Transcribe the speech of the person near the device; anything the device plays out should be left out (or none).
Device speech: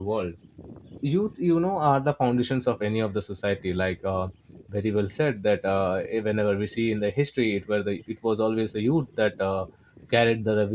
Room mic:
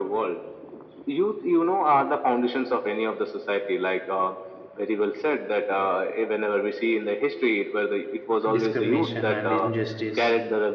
discrimination and injustice